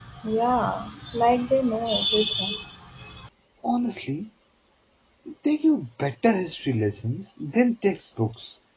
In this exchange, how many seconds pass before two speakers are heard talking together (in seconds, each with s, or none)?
none